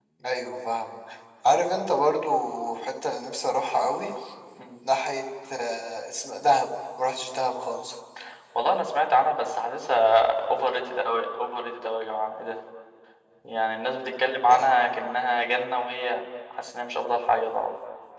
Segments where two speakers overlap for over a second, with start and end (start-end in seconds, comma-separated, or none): none